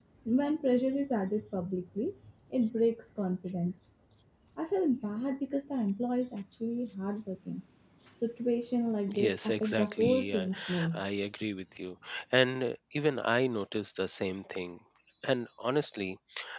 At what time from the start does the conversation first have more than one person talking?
9.1 s

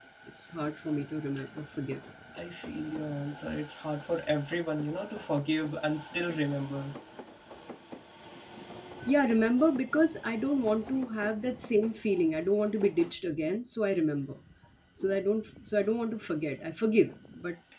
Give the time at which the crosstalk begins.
none

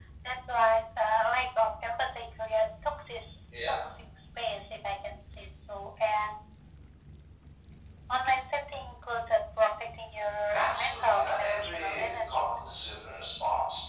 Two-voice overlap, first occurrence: 10.5 s

